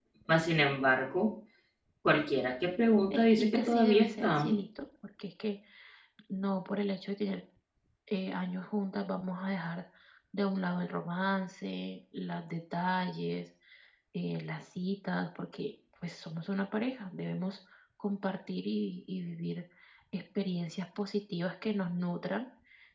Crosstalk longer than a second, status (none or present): present